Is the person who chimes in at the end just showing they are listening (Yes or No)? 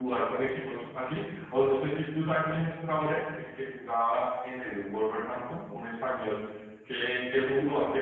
Yes